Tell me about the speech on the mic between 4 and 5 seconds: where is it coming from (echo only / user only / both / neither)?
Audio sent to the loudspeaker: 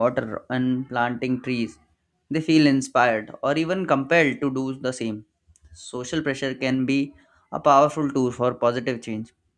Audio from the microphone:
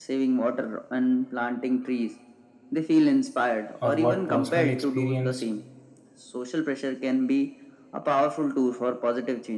both